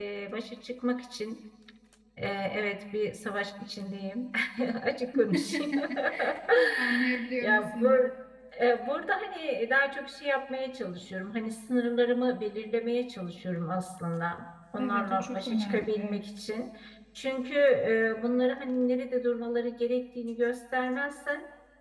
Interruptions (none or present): present